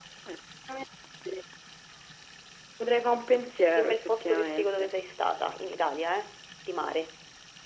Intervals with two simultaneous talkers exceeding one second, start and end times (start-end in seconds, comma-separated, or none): 3.7-4.9